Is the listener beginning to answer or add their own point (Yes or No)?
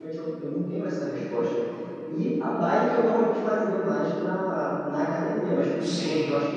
No